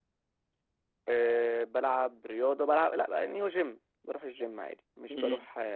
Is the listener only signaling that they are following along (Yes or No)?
Yes